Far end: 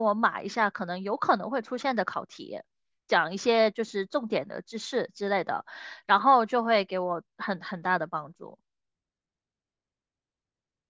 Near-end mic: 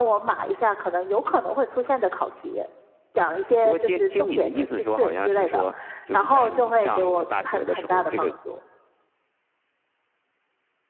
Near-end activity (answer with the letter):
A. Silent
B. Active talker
B